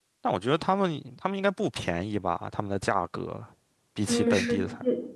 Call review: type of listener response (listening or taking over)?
taking over